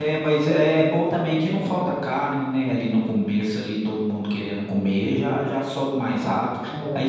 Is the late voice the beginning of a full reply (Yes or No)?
No